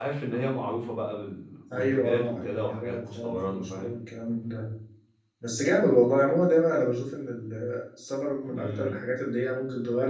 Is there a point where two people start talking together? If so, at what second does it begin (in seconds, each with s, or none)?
1.7 s